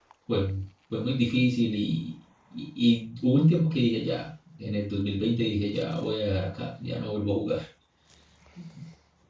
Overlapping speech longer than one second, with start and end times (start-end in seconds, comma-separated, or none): none